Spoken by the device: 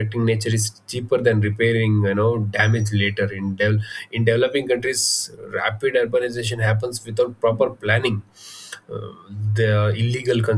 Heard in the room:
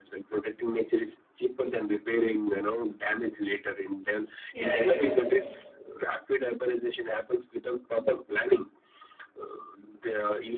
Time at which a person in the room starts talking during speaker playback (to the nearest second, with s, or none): 5 s